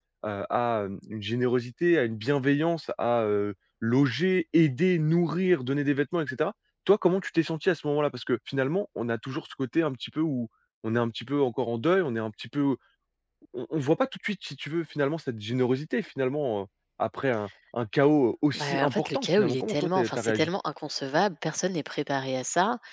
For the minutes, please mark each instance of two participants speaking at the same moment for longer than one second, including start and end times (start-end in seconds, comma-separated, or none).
18.5-20.5